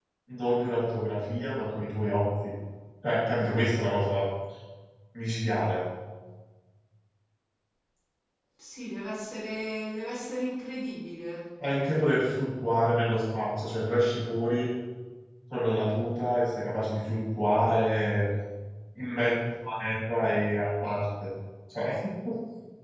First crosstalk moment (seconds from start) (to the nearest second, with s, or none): none